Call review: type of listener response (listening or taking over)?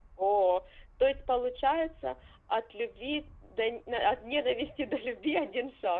taking over